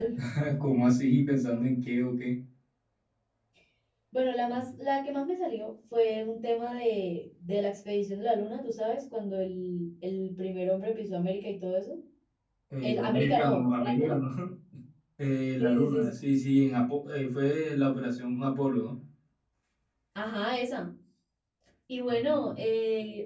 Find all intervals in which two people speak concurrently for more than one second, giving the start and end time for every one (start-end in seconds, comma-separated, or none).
12.8-14.2